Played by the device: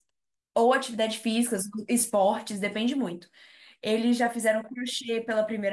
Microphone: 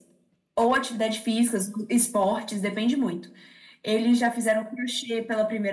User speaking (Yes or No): No